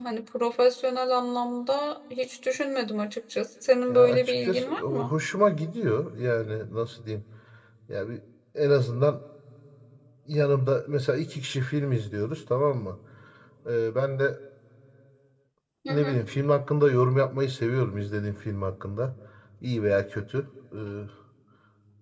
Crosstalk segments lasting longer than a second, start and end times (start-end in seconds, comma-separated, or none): 3.9-5.1